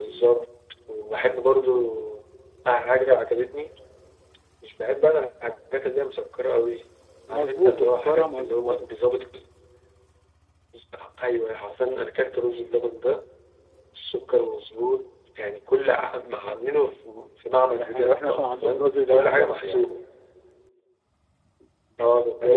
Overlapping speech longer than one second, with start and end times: 7.3-8.8, 17.7-19.9

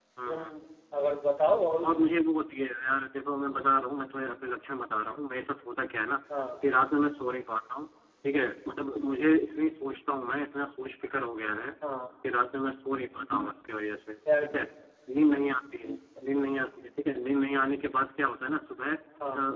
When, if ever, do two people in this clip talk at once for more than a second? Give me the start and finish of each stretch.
none

